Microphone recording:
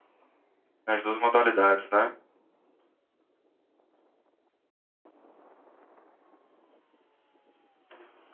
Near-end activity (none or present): present